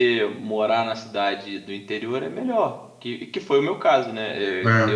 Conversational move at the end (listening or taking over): listening